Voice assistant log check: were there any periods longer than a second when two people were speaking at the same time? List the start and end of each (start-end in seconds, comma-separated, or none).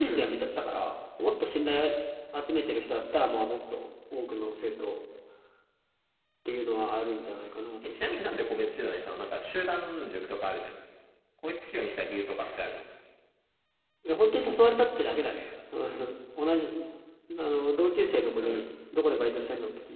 none